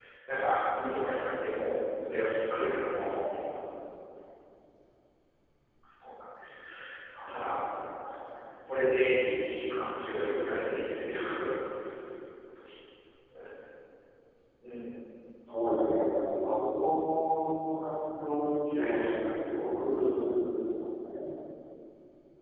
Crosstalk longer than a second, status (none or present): present